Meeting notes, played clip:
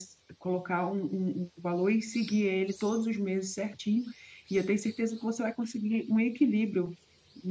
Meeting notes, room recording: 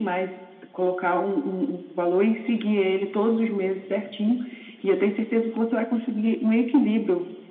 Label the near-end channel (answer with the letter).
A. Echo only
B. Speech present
A